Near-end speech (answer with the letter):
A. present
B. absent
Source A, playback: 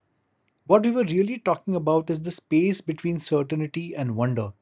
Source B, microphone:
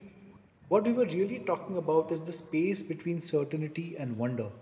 B